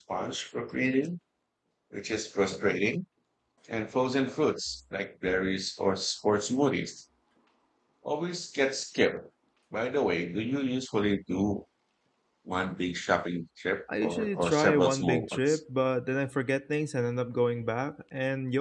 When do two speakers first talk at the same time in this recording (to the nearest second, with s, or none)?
14 s